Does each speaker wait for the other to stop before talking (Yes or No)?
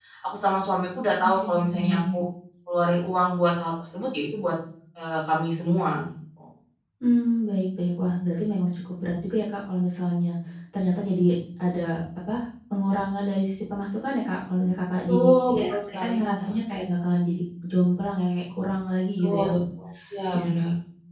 No